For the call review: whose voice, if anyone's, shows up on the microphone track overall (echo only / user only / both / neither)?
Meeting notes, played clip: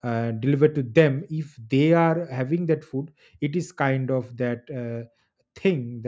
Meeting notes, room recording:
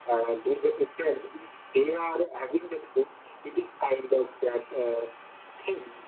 echo only